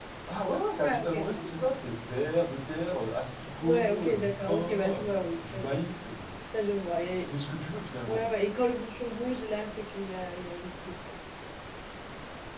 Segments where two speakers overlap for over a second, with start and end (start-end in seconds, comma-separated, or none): 3.6-5.0